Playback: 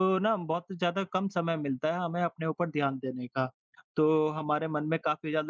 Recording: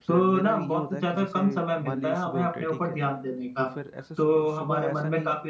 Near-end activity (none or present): present